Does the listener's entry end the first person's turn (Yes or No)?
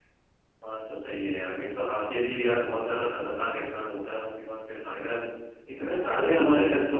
No